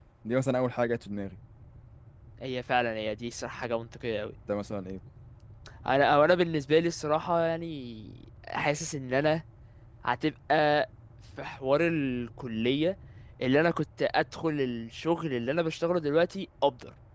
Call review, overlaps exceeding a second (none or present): none